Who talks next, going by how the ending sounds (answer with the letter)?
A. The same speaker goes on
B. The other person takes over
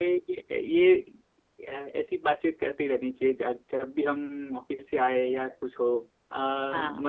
A